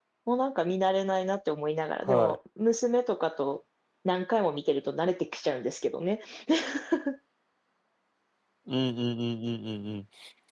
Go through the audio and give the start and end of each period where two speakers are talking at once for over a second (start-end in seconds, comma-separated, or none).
none